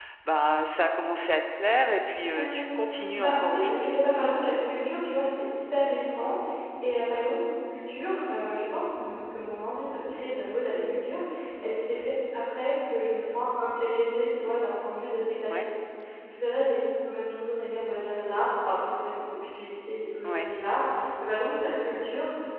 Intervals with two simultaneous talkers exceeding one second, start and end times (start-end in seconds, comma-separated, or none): 2.3-4.0